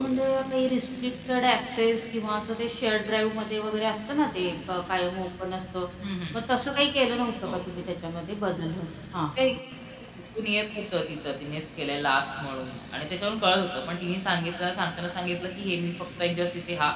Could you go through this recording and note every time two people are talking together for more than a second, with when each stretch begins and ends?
none

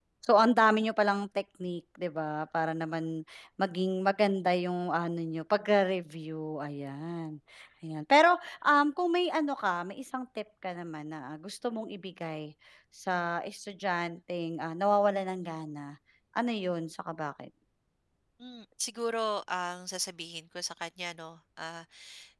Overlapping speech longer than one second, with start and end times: none

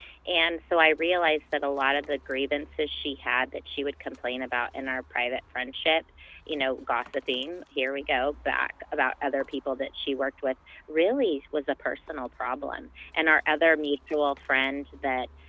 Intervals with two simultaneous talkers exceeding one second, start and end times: none

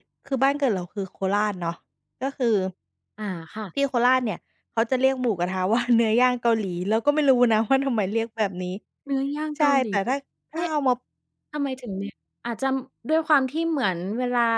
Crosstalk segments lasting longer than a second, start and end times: none

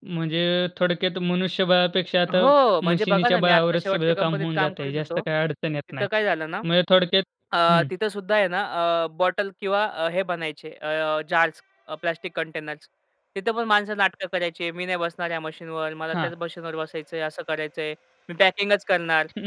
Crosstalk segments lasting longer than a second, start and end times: 2.9-5.2

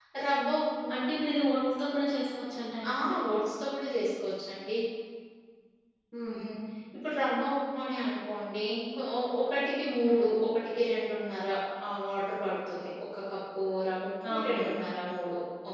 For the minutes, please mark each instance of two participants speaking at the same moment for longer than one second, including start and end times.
none

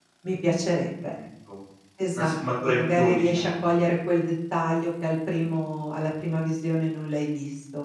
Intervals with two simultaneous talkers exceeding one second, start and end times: 2.1-3.6

